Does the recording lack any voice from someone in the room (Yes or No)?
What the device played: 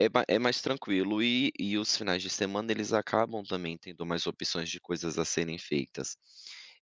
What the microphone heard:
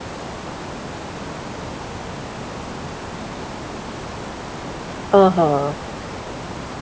No